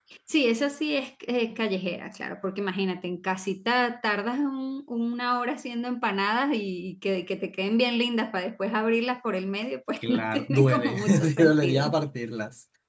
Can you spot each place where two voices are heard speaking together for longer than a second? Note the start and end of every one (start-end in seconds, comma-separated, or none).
10.0-11.9